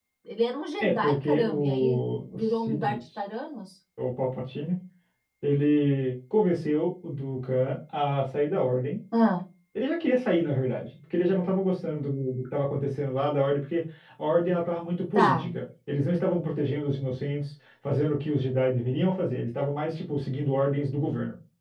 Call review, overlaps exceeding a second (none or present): present